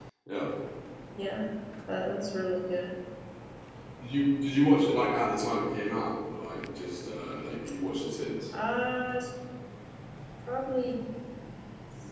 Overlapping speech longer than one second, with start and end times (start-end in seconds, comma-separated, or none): none